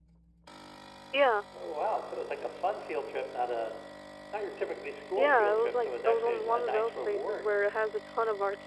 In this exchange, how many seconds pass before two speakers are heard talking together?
5.2 s

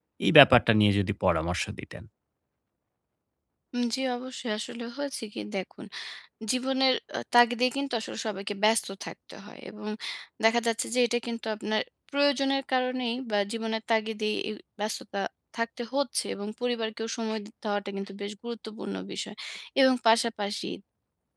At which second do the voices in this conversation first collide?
none

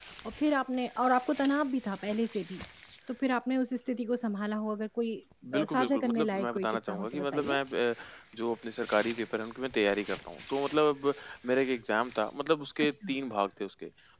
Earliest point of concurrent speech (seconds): 5.5 s

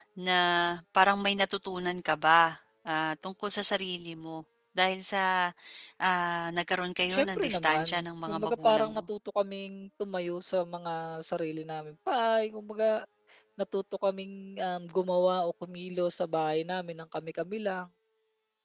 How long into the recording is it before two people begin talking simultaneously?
7.1 s

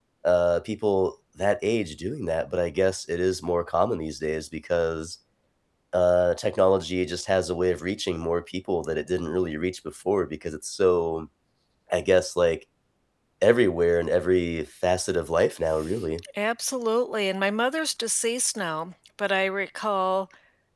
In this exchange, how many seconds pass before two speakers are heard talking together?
none

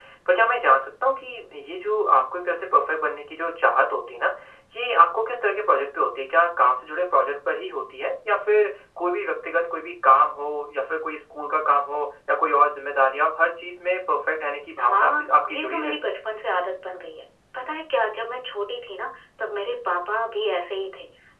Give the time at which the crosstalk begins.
14.8 s

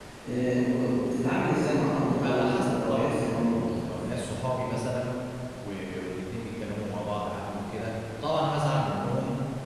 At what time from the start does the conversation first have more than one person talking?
1.9 s

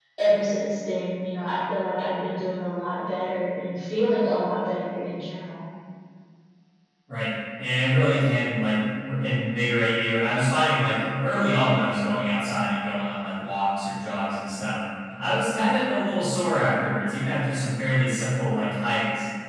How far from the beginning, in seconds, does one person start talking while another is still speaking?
none

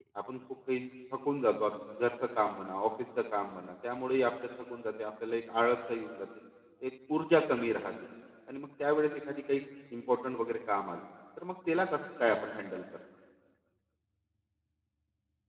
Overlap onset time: none

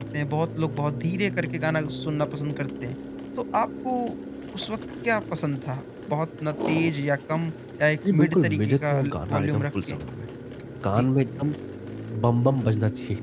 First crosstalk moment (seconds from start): 8.0 s

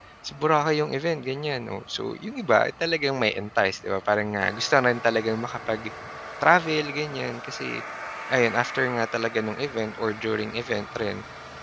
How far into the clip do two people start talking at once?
none

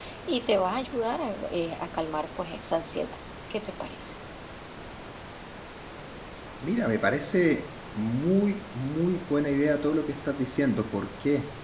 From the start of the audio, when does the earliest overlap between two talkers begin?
none

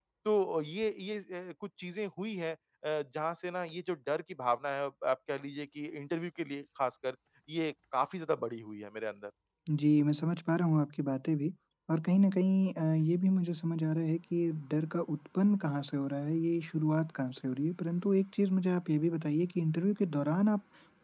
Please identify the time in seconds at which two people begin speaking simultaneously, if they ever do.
none

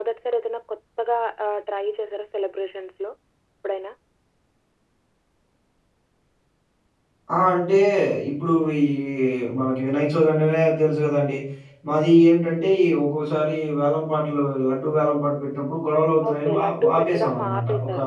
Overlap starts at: 16.2 s

